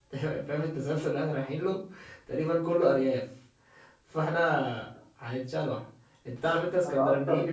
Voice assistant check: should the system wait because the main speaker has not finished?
Yes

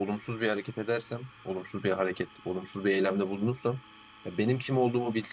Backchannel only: Yes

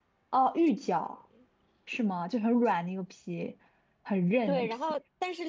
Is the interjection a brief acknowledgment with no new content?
No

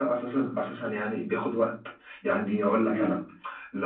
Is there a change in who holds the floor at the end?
No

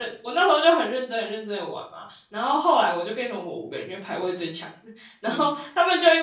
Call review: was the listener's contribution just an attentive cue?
Yes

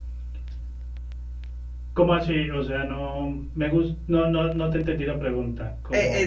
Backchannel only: No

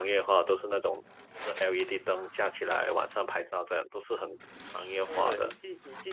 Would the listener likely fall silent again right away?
No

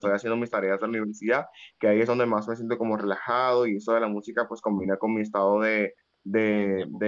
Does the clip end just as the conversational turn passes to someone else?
No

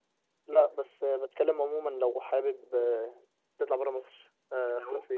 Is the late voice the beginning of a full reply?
Yes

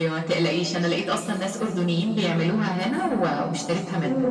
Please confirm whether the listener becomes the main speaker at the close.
Yes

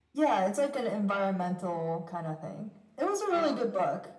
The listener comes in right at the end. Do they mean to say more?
No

